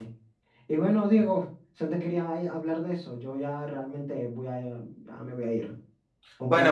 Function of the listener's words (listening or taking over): taking over